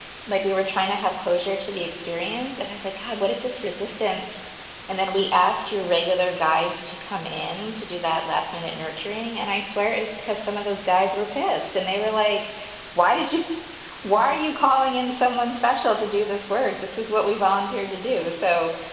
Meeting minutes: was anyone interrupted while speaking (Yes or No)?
No